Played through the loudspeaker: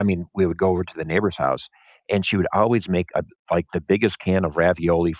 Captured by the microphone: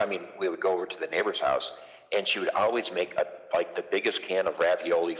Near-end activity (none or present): none